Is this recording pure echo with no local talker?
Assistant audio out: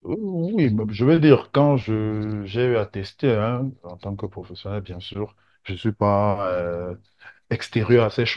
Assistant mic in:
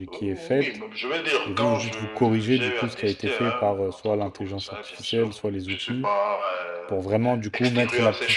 No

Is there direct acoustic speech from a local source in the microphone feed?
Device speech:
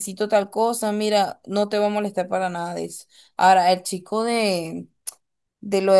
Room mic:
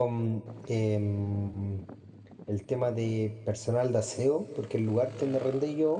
Yes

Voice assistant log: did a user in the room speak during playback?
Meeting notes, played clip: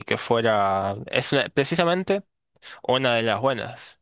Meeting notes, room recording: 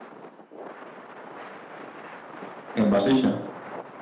Yes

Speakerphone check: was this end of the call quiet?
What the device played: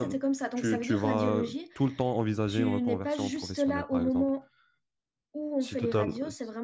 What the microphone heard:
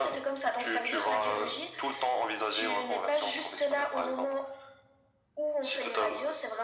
Yes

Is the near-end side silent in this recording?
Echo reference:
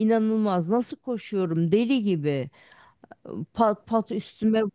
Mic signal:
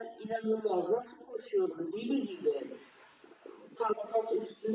Yes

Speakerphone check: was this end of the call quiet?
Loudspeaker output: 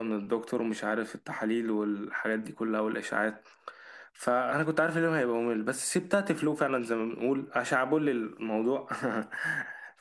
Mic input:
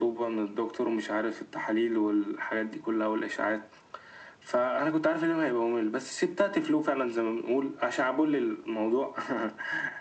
Yes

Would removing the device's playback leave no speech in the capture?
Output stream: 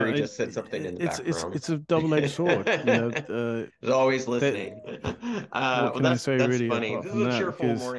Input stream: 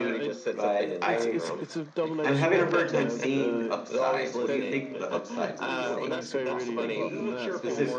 No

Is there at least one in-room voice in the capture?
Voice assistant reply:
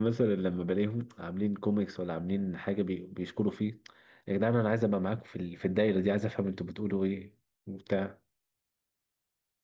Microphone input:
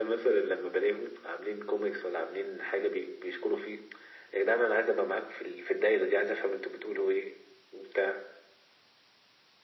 No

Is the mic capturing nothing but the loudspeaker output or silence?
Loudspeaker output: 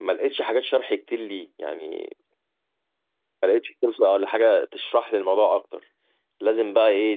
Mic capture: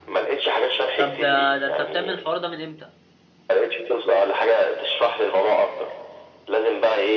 No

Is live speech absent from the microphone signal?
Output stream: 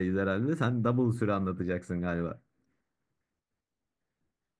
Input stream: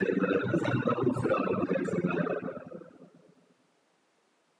Yes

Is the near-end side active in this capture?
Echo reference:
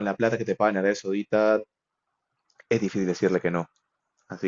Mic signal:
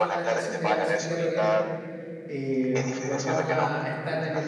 Yes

